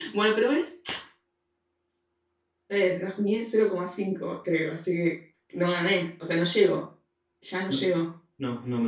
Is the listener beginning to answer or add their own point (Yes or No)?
Yes